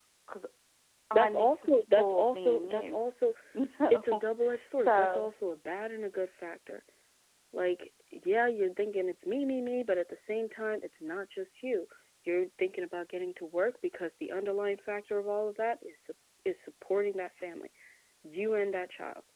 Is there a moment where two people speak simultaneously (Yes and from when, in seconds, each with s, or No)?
Yes, from 1.1 s